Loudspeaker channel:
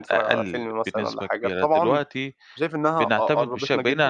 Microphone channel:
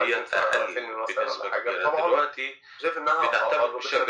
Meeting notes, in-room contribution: none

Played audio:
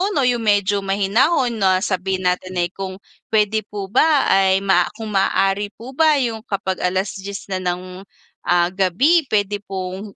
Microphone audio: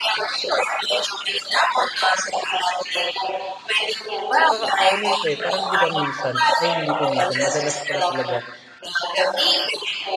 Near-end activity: present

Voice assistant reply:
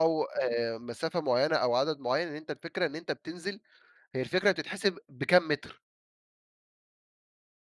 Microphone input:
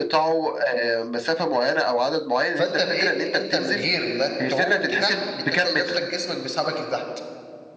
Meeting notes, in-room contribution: present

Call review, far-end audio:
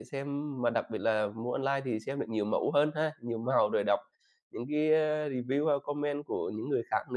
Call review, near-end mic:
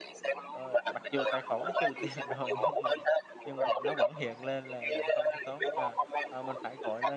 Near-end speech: present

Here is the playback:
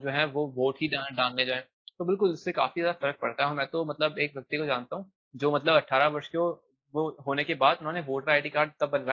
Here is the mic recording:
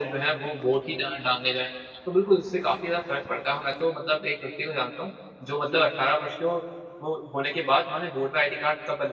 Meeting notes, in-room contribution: none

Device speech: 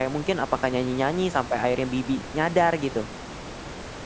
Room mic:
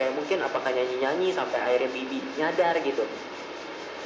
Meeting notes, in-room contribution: none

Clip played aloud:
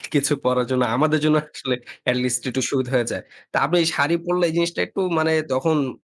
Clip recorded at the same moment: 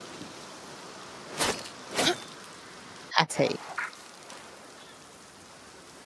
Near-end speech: present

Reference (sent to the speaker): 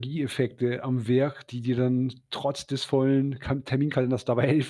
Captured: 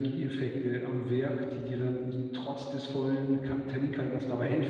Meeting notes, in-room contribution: none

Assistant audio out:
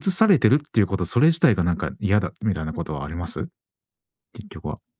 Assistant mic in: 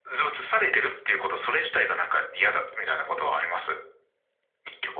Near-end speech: none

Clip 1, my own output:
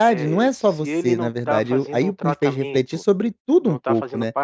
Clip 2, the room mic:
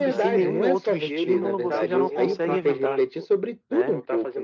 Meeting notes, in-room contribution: present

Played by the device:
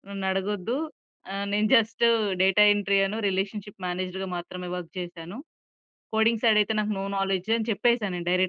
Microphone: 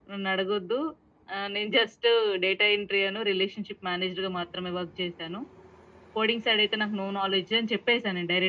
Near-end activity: none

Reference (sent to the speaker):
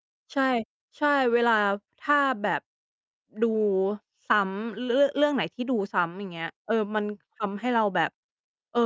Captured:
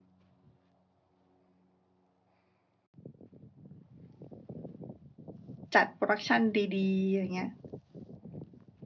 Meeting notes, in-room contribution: present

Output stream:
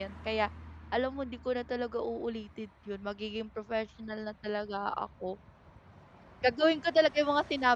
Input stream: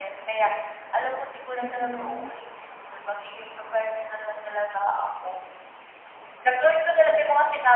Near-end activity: present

